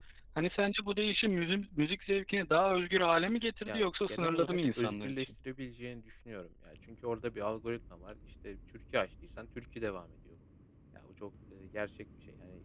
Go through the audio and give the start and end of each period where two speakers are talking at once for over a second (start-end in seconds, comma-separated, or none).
3.7-5.3